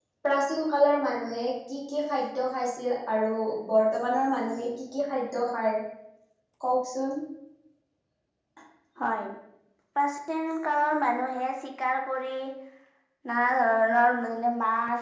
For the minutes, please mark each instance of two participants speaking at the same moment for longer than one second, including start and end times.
none

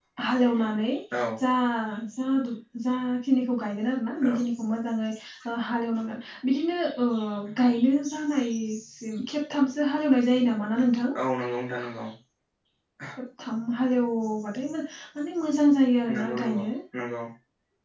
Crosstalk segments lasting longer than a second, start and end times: none

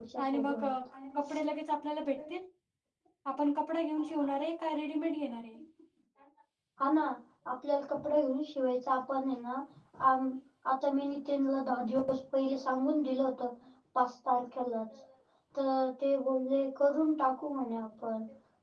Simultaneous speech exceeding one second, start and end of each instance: none

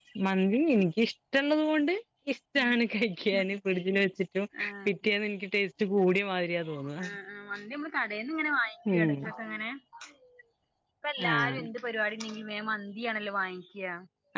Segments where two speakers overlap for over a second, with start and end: none

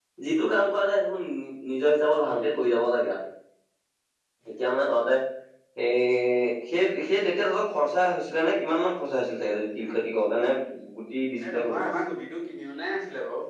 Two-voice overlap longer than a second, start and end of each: none

